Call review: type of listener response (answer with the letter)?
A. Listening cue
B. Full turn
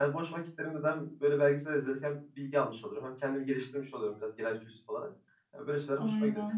A